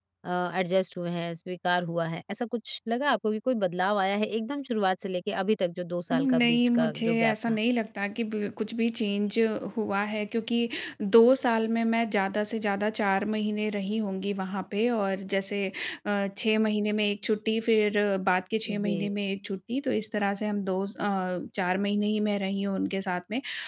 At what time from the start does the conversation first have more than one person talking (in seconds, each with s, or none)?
6.1 s